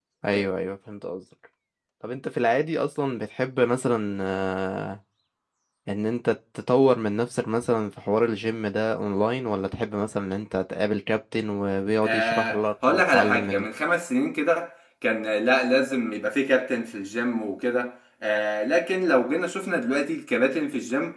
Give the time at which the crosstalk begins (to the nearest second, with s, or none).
12 s